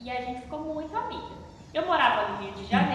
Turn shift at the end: No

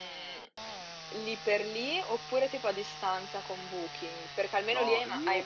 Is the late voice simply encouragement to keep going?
No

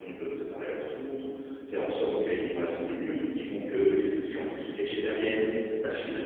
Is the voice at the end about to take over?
No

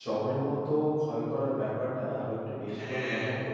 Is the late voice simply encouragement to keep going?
Yes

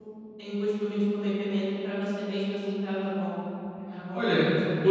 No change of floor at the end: No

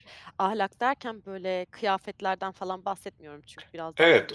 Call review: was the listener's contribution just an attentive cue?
No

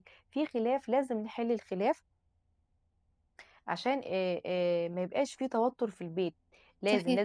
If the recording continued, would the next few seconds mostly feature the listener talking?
No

